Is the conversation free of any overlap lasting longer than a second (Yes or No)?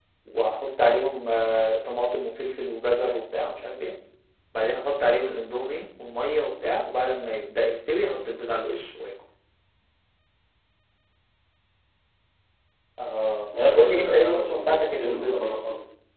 No